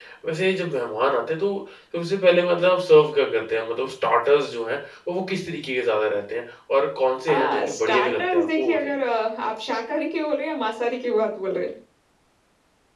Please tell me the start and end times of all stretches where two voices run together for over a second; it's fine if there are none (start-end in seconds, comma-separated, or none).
7.3-9.0